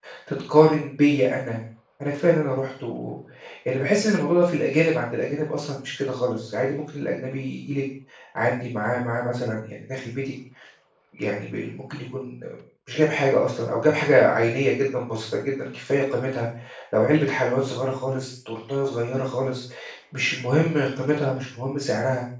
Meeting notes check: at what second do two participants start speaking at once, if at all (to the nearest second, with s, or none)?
none